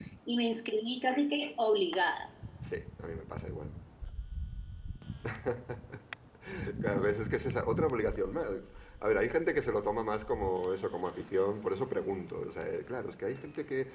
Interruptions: none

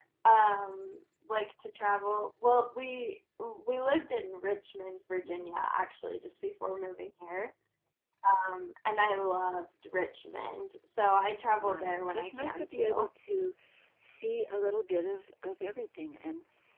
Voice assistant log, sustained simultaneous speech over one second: present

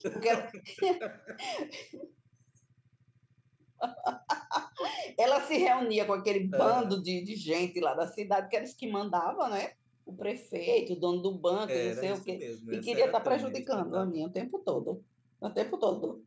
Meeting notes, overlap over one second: present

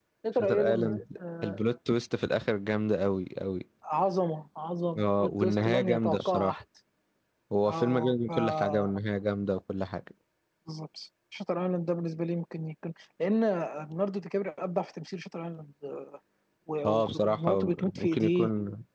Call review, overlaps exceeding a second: present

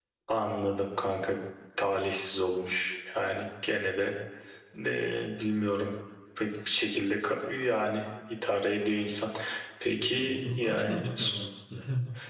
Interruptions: present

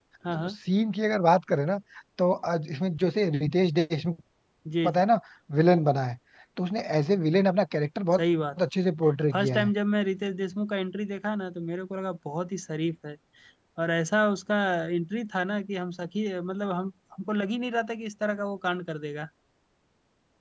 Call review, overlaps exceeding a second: none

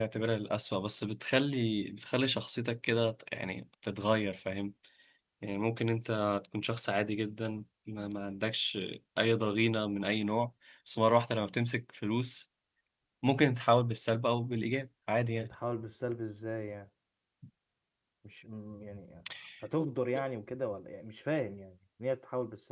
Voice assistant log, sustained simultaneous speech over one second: none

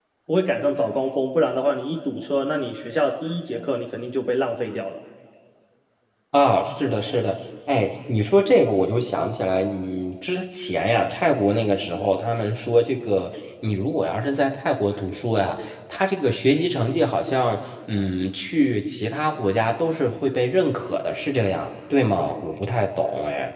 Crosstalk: none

